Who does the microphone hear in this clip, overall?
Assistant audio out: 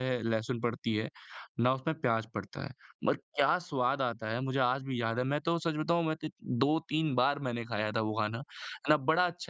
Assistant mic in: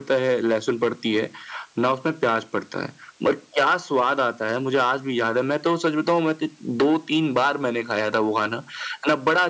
echo only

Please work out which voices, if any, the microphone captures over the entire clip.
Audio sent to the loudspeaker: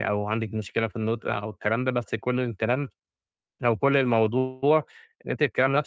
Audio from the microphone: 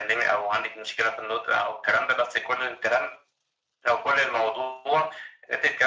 echo only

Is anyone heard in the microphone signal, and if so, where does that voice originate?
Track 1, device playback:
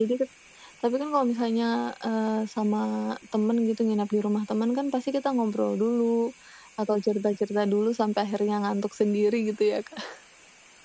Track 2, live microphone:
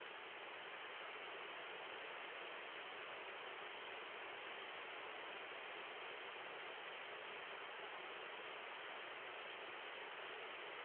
neither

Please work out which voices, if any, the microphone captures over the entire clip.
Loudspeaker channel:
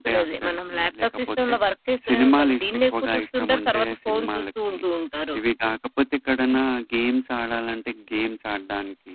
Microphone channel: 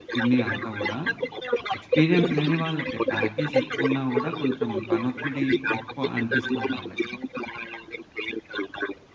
both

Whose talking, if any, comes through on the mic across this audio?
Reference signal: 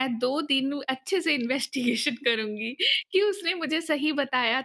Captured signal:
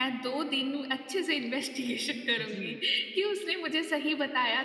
both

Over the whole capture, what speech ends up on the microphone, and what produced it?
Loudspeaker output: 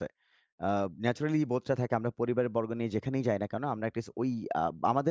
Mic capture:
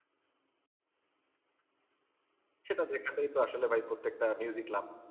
user only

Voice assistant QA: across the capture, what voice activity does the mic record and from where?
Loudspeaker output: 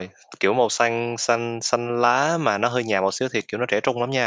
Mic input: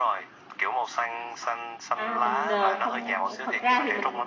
both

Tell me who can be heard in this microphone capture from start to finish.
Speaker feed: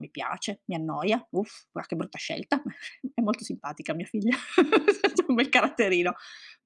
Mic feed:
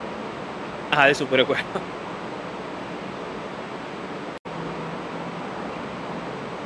user only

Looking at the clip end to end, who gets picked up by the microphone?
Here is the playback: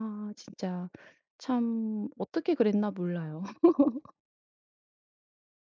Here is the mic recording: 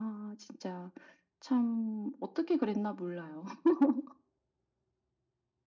echo only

